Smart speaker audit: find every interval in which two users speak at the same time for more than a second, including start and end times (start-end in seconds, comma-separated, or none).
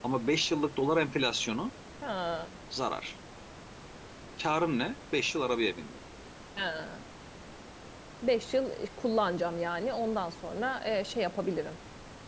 none